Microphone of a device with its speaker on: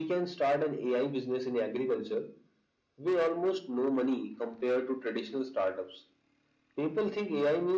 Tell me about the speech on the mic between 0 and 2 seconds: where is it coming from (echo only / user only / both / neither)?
echo only